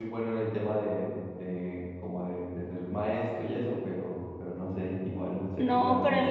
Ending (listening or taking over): taking over